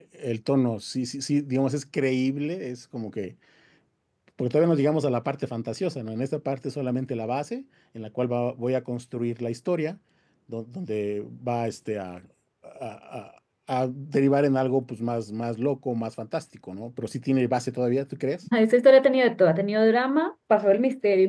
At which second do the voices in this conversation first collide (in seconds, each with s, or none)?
none